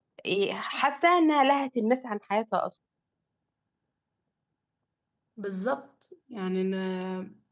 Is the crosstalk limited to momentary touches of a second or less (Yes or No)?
Yes